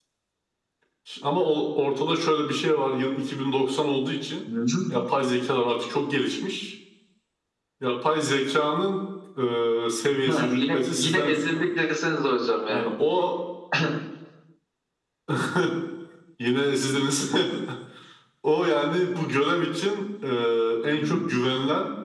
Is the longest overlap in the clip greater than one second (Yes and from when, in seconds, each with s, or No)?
Yes, from 10.2 s